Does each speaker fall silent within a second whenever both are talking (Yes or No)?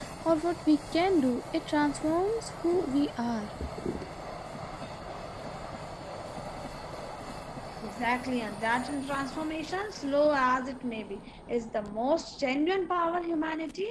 Yes